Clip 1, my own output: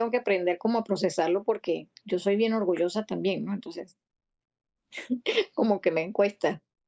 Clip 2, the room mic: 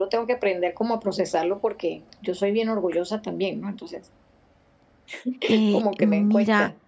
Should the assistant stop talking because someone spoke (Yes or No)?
Yes